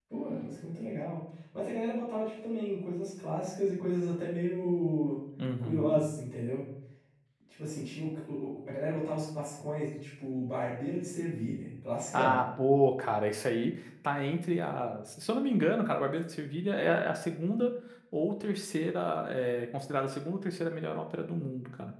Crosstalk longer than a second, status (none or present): none